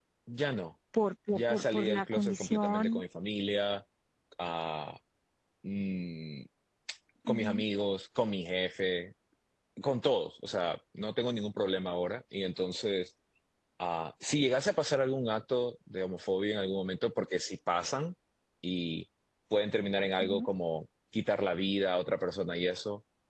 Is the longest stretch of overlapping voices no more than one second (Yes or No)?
No